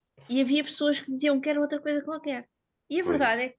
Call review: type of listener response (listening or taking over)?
listening